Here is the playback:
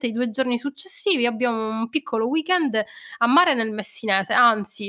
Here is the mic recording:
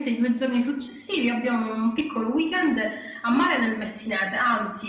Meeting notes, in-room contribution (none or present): none